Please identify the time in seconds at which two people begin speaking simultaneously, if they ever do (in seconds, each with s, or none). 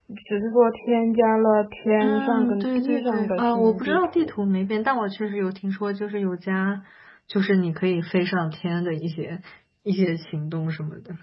2.0 s